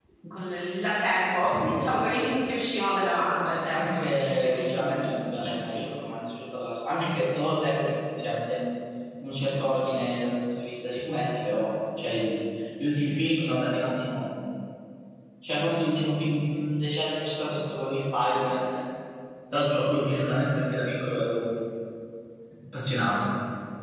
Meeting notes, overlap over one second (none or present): present